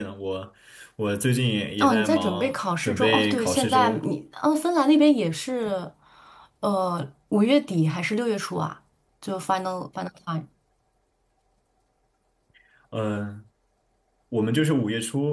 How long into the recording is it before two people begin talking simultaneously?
2 s

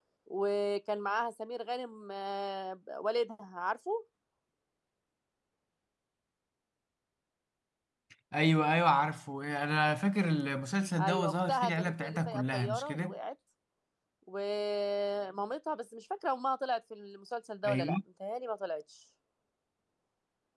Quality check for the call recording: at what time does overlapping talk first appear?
11 s

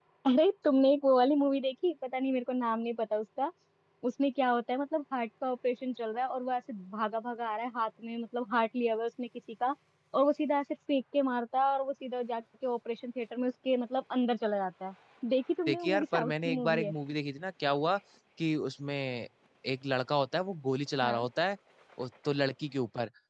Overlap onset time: 16 s

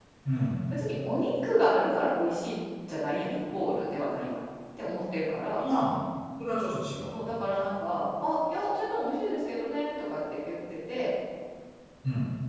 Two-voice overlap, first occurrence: none

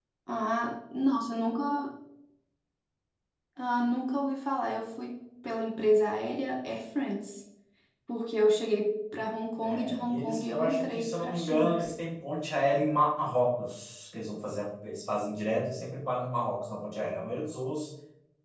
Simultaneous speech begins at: 10 s

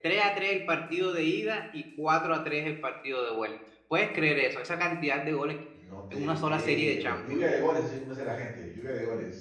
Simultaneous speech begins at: 6 s

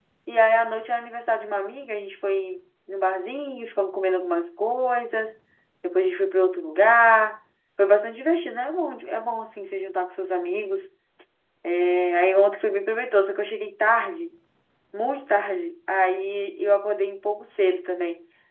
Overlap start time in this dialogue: none

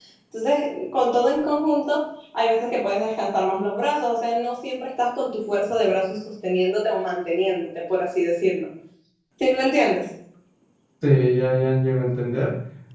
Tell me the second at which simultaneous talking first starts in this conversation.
none

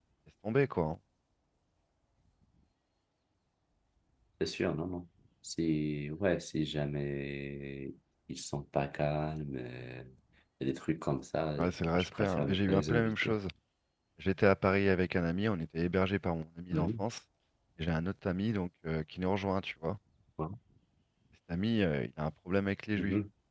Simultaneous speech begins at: 12 s

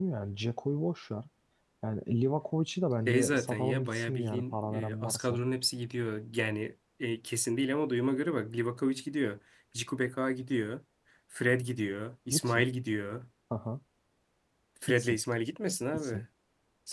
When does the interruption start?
3 s

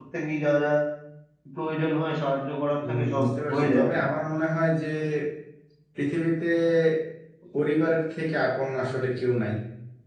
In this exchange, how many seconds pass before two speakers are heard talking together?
3 s

